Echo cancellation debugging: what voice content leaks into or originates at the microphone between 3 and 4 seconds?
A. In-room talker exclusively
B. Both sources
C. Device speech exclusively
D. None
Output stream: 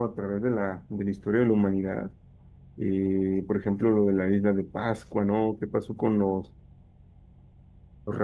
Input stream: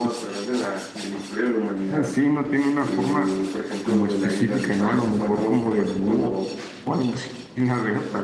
B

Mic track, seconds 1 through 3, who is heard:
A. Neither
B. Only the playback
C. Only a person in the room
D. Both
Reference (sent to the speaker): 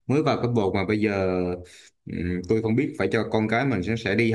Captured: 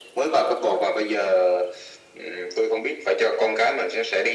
B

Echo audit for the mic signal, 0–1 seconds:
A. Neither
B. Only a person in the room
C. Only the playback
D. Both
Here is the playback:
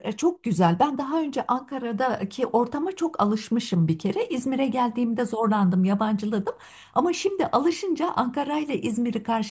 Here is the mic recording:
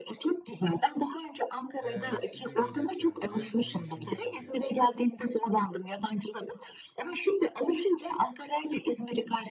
C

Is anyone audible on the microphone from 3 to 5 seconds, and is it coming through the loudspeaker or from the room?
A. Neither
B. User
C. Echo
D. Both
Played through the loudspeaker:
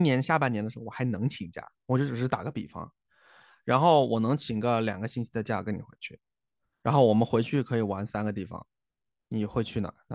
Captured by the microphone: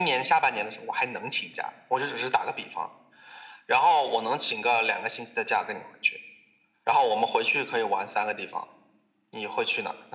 C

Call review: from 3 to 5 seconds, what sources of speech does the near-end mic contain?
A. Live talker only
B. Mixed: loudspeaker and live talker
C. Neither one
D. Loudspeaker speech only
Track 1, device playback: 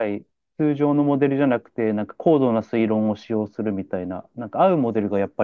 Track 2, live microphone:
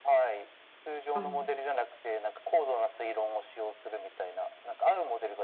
D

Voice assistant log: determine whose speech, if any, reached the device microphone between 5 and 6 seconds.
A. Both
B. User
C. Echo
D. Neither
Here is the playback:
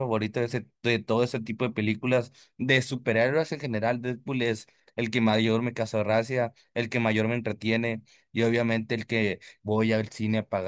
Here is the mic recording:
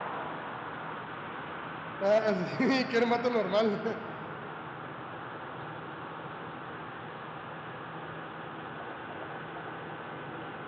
D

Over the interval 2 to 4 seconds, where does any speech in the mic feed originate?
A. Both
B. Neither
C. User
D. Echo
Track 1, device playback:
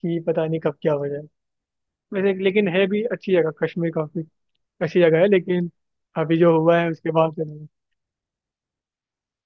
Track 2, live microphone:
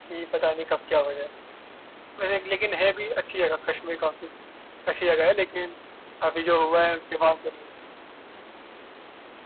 D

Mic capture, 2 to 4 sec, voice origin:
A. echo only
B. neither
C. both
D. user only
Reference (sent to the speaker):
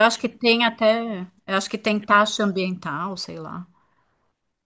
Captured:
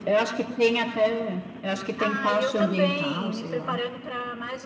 C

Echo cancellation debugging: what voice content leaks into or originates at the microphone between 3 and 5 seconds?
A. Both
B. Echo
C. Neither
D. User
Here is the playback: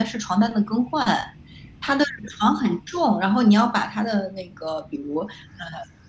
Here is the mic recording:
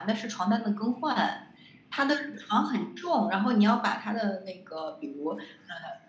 B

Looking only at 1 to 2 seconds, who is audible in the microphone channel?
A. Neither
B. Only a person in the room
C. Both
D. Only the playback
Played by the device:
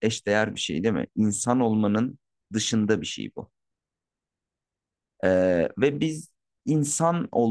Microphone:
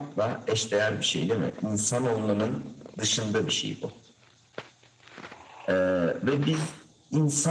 D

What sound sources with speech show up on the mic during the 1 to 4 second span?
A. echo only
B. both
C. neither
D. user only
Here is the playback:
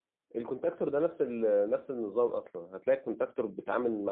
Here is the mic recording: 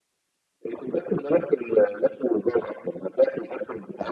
A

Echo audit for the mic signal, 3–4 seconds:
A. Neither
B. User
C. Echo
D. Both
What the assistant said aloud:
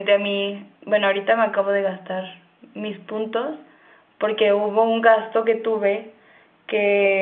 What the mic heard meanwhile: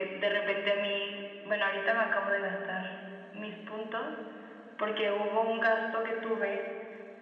C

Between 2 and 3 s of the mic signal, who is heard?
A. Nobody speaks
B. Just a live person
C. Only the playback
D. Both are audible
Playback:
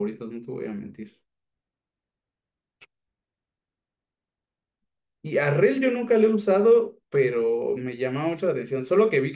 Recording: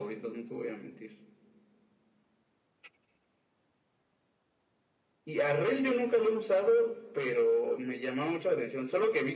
A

